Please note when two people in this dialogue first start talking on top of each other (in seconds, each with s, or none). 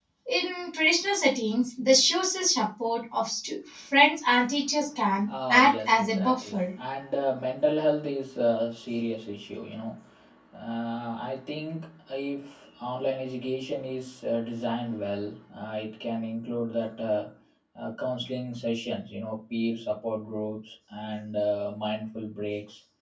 5.3 s